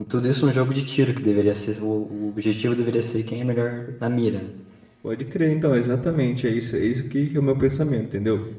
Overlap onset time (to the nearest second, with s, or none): none